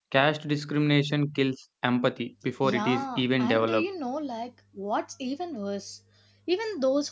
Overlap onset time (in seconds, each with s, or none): 2.6 s